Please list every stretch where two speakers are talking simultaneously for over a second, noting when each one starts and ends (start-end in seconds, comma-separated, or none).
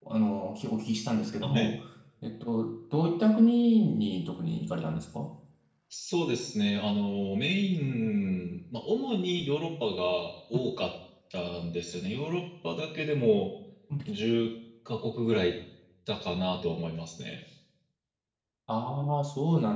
none